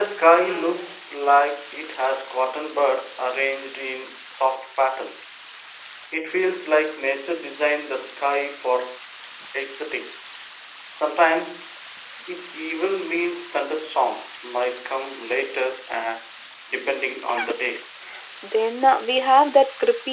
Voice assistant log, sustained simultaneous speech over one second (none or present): none